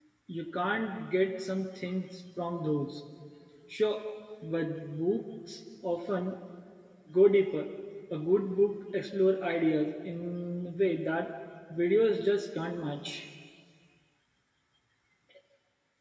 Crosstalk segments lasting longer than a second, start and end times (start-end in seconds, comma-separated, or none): none